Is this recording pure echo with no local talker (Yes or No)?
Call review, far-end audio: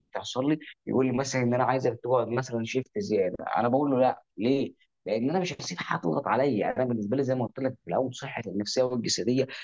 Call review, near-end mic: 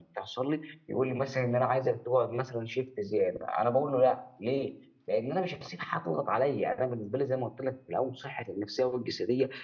Yes